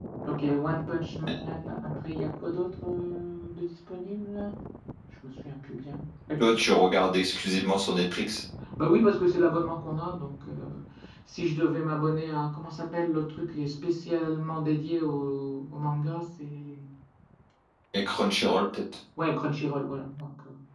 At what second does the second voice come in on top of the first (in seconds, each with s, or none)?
none